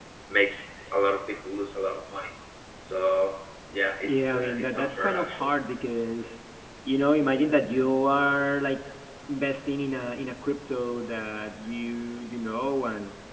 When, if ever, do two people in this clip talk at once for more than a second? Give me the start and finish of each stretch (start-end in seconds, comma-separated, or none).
4.0-5.5